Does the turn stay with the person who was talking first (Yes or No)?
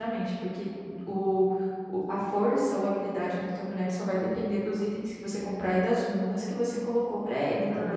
No